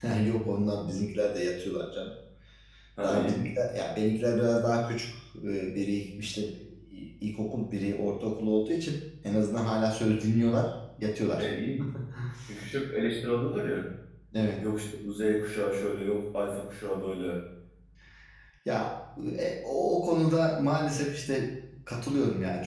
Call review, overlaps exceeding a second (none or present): none